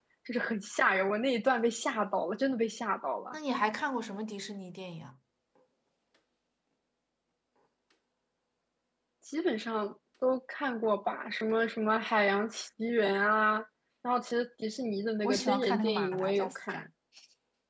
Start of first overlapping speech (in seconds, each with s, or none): 15.2 s